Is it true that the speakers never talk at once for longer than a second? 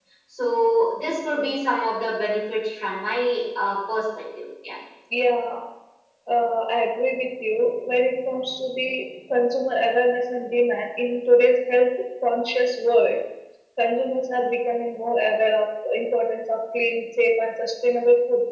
Yes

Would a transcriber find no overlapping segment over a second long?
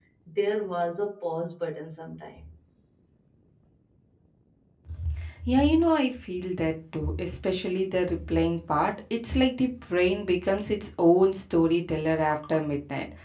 Yes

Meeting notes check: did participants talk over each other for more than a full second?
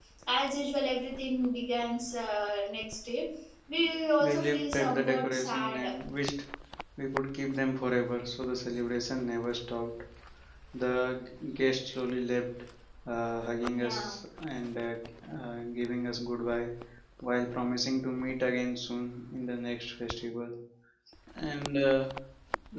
Yes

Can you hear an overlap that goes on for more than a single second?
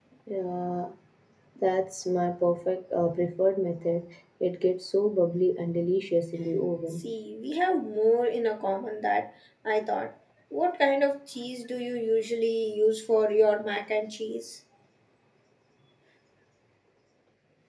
No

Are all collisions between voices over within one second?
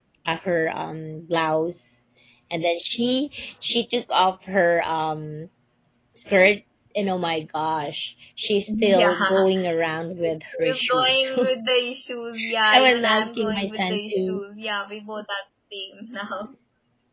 No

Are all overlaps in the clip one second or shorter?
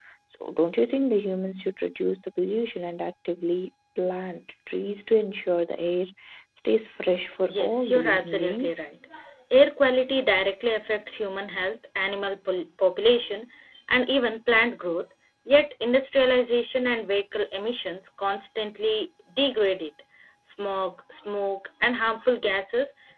No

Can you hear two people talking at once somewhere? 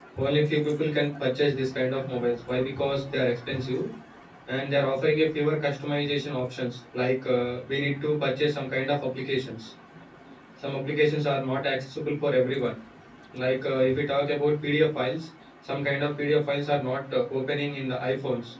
No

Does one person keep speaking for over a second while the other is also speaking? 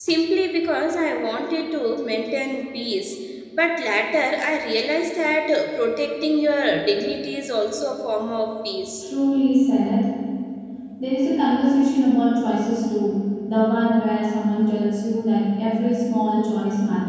No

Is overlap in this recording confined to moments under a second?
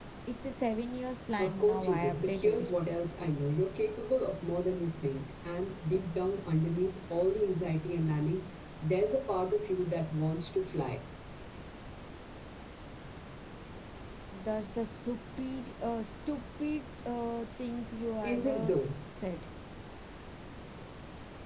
No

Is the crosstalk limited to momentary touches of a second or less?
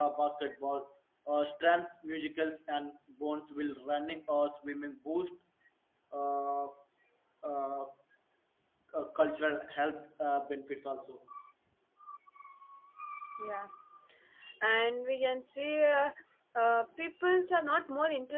Yes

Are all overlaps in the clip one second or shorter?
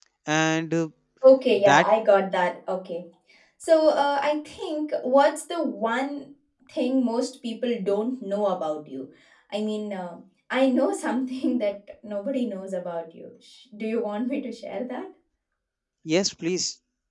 Yes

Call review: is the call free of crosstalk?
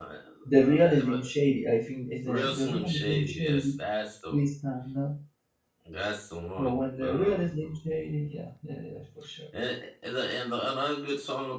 No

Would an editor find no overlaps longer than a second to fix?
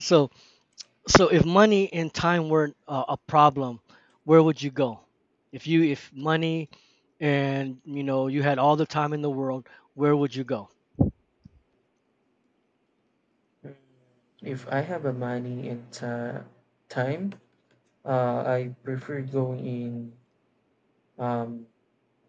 Yes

